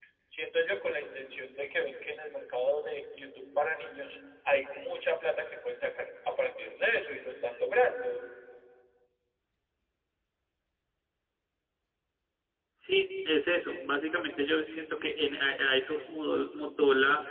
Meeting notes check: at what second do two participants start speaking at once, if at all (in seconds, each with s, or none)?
none